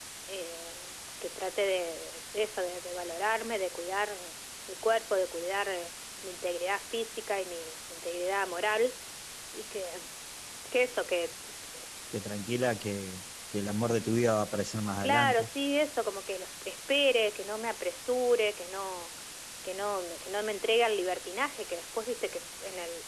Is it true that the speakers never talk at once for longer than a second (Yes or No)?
Yes